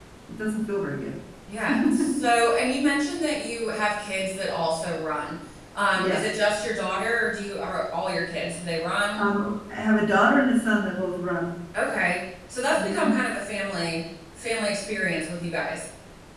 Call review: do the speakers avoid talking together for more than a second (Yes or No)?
Yes